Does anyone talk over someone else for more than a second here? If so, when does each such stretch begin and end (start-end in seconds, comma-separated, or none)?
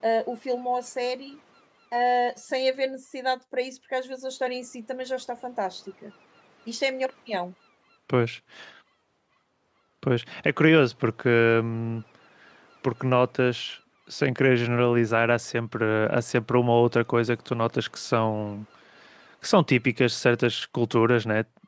none